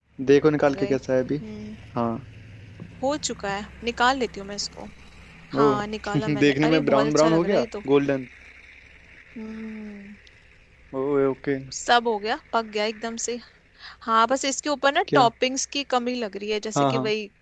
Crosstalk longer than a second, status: present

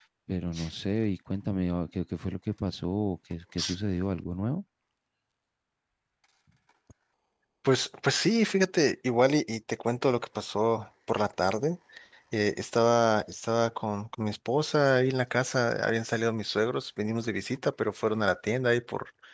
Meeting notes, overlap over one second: none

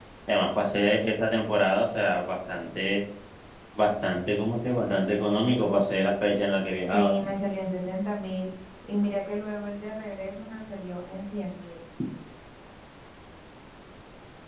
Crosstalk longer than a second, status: none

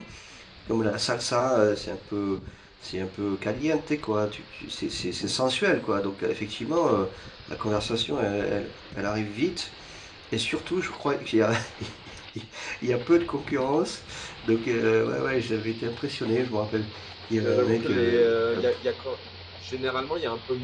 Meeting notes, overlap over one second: present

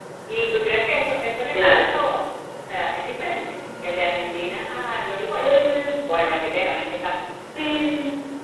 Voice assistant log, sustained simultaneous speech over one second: none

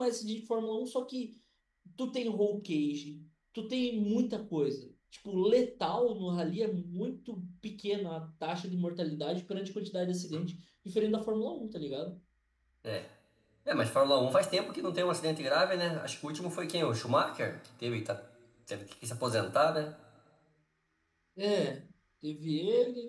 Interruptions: none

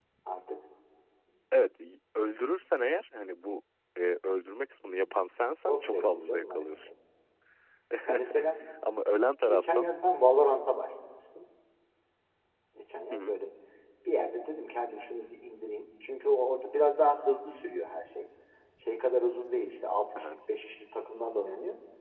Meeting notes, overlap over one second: present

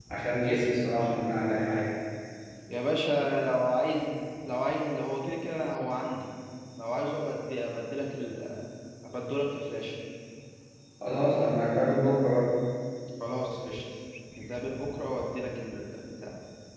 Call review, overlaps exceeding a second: none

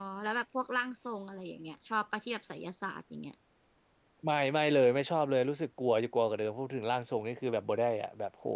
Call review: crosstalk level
none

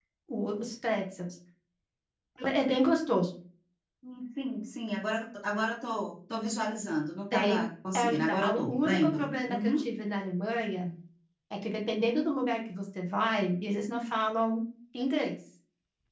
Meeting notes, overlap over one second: present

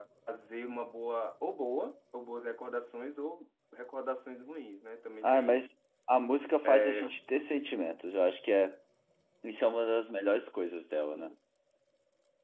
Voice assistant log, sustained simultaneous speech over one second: none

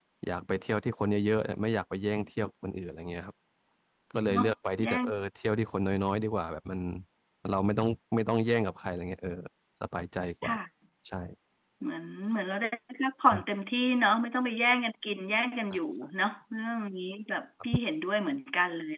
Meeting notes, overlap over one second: none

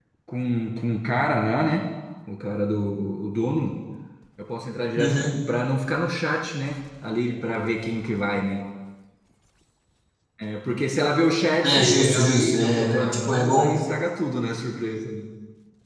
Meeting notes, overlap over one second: present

